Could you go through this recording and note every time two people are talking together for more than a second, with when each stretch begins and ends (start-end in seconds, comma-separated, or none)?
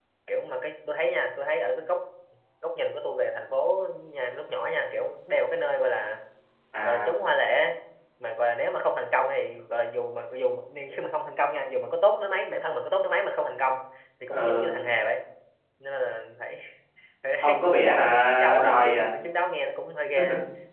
17.4-19.0